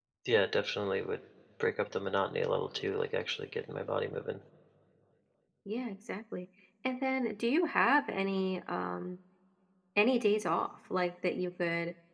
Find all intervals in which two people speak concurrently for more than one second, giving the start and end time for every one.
none

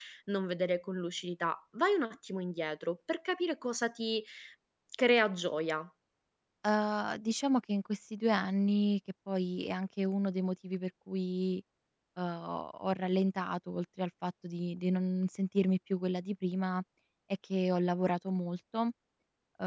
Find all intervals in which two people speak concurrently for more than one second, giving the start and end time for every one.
none

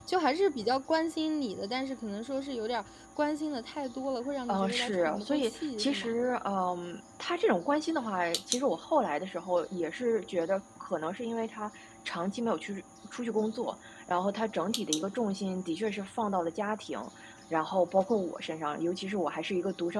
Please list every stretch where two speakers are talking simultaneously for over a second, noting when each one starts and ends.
4.5-6.2

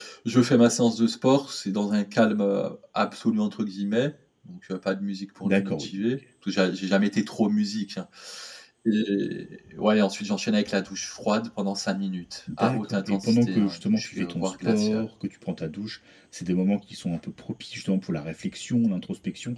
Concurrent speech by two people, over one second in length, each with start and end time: 12.6-15.0

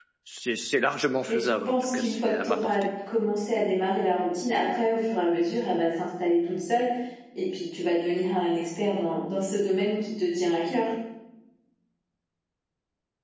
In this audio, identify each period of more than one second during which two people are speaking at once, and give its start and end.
1.3-2.9

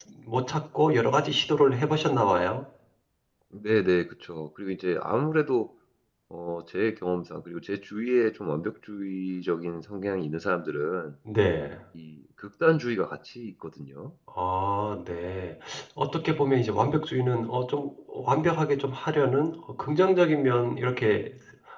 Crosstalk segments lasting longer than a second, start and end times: none

